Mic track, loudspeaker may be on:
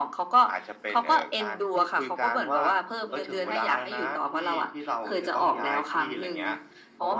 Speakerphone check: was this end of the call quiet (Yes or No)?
Yes